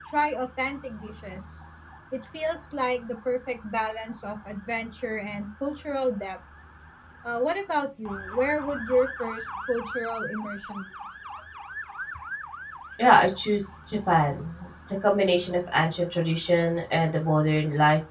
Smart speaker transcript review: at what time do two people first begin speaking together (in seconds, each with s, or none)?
none